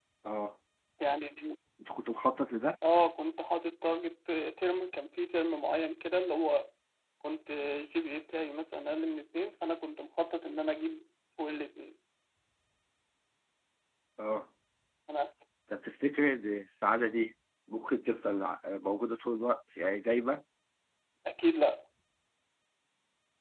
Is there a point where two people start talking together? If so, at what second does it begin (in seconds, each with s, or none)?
none